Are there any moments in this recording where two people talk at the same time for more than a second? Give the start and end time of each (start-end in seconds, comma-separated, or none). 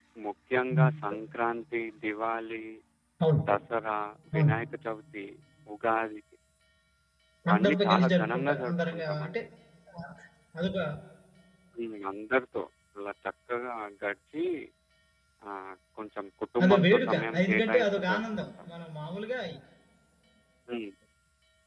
7.5-9.4, 16.6-18.5